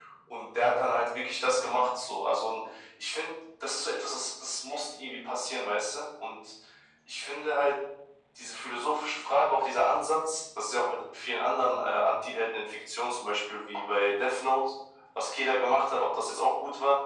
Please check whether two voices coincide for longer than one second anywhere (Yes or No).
No